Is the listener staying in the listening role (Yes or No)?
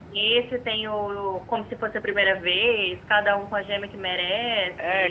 No